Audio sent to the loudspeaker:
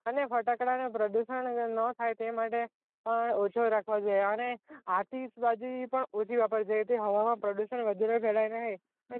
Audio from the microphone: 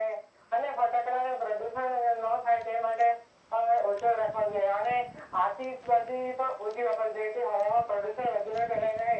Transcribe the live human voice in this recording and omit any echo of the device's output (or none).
none